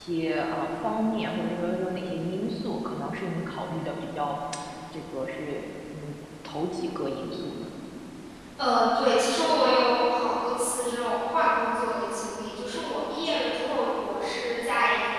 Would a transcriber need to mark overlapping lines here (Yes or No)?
No